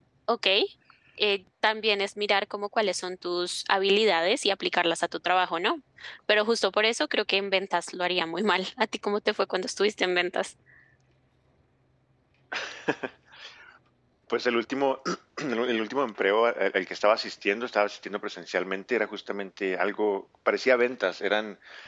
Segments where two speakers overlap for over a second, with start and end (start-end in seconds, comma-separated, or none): none